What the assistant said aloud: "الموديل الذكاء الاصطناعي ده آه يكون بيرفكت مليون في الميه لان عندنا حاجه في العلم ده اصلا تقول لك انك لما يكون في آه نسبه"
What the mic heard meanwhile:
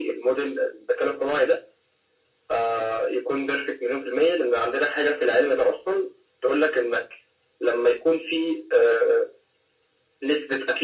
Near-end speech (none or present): none